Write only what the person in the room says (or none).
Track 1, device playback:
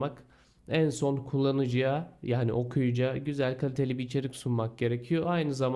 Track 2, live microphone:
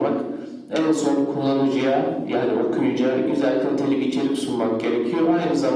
none